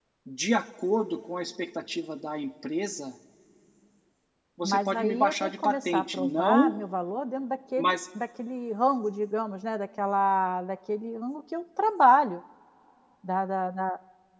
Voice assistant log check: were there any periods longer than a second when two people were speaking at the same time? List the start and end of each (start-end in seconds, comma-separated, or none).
4.6-6.7